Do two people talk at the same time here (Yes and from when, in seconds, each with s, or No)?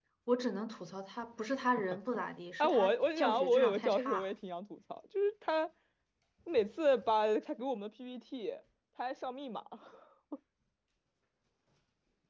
Yes, from 2.6 s